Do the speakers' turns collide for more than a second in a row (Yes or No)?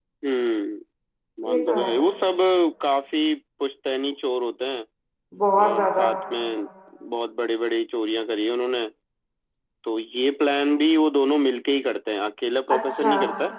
No